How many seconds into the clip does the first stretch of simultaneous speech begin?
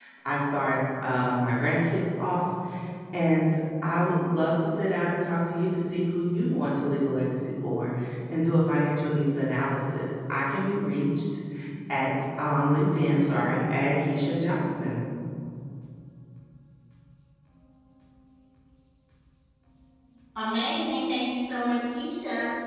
none

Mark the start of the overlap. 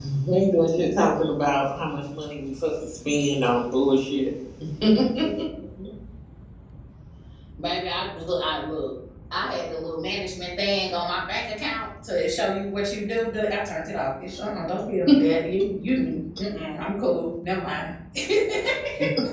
none

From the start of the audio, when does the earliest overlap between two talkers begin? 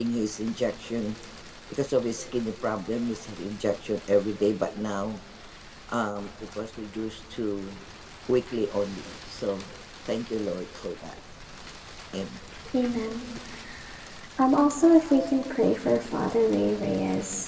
none

